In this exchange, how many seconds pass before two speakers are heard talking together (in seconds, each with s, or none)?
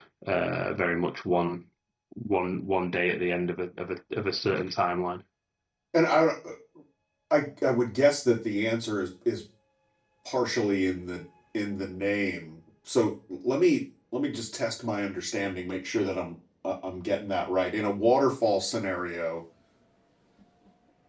none